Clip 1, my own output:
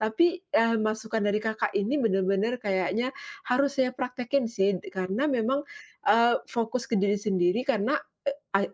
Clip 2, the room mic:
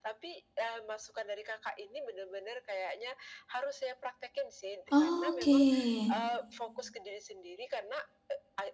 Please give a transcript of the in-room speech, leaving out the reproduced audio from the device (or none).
Oke.